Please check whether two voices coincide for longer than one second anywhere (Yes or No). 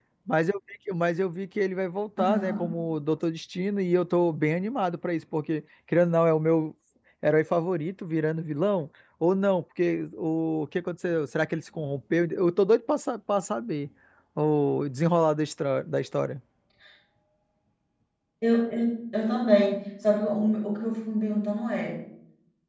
No